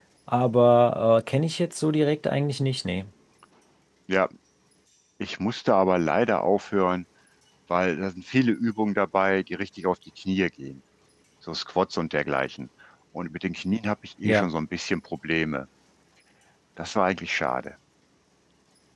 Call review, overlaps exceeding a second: none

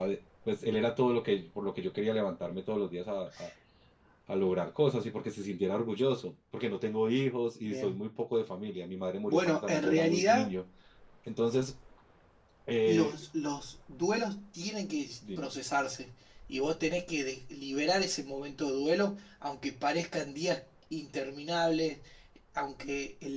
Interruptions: present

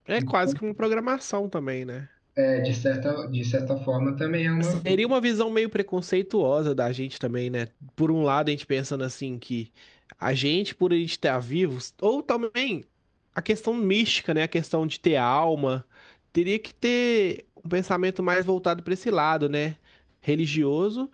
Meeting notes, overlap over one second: none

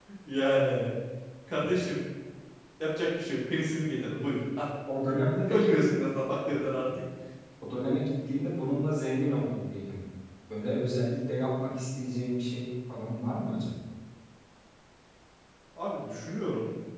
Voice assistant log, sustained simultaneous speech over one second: none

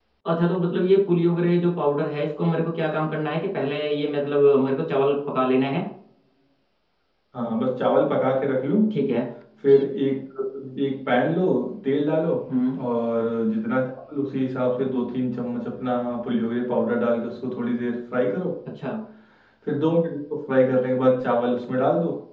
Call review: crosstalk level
none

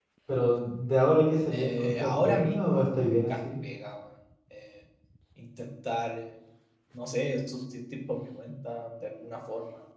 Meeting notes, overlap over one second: present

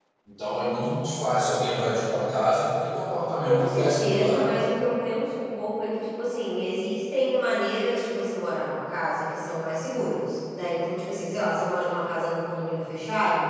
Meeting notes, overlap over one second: present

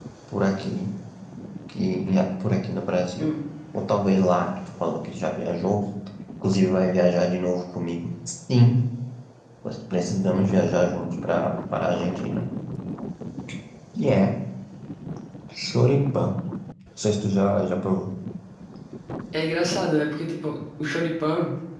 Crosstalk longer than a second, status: none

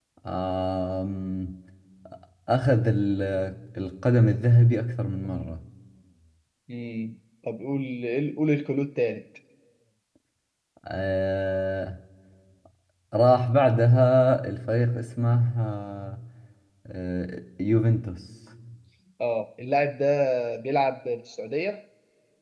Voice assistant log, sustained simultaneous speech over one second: none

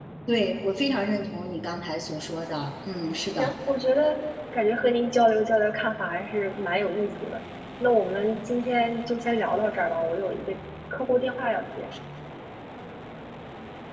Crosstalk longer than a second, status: none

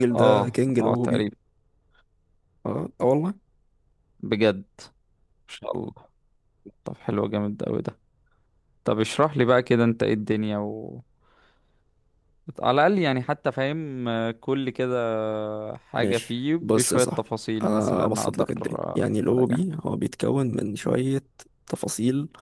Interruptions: present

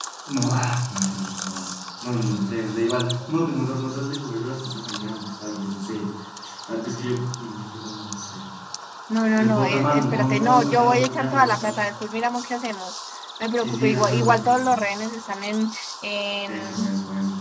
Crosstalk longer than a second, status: present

